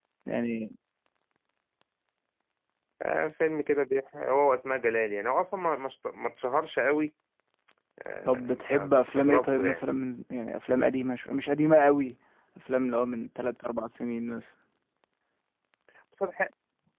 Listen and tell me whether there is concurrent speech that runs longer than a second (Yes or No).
Yes